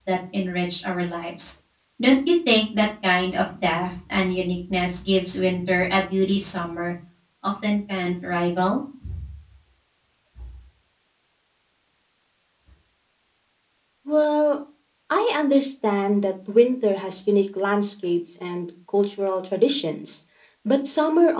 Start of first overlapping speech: none

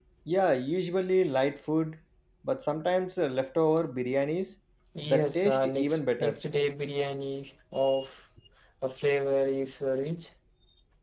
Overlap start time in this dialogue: 5.0 s

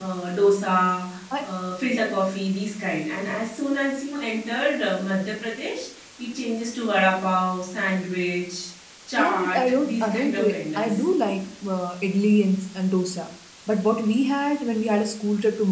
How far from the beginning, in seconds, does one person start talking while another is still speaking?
9.2 s

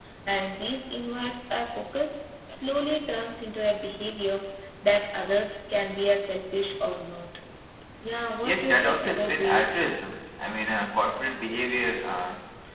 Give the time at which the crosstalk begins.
8.4 s

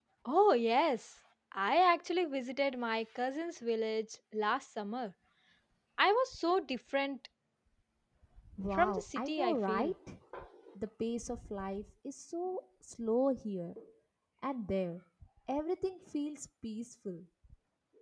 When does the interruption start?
8.7 s

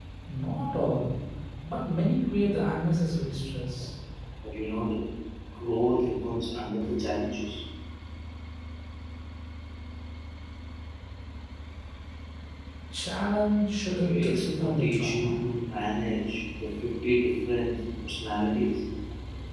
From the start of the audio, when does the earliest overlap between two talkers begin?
13.8 s

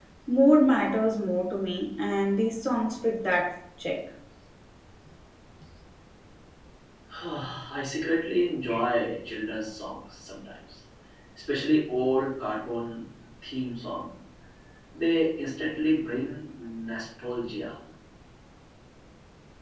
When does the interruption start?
none

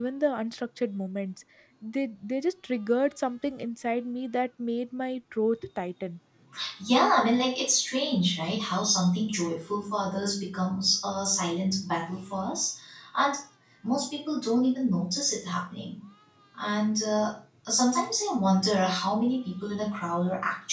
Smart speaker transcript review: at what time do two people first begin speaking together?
none

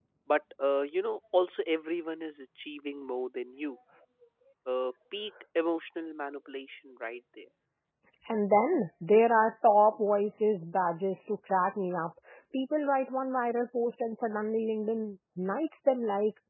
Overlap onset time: none

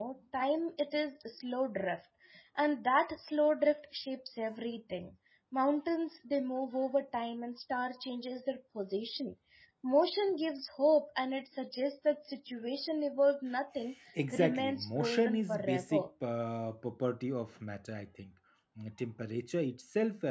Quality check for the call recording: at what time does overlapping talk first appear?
14.3 s

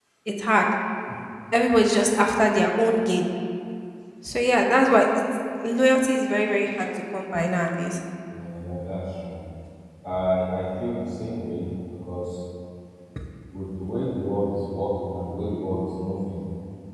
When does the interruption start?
none

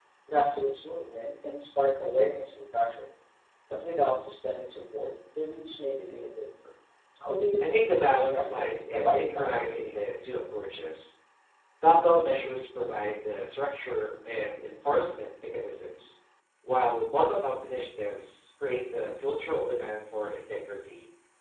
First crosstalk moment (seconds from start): 7.6 s

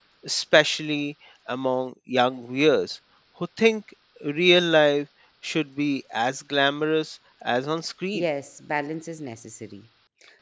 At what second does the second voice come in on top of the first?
none

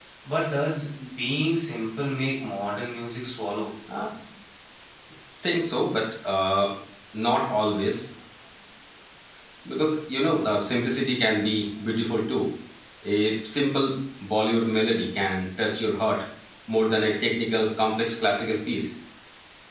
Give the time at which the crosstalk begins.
none

